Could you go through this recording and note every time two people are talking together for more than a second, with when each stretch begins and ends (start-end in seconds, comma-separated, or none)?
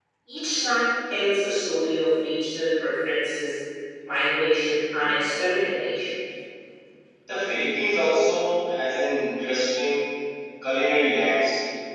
none